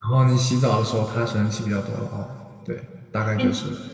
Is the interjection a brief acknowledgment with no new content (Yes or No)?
No